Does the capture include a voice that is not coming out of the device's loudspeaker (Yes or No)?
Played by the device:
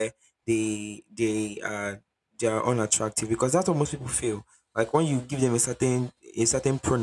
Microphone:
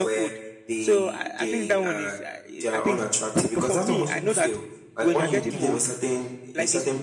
Yes